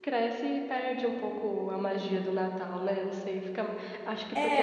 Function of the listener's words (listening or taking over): taking over